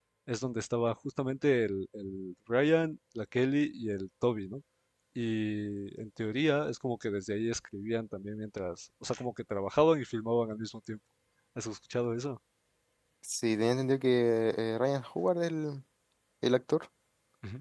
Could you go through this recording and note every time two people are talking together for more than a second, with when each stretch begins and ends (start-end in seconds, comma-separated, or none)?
none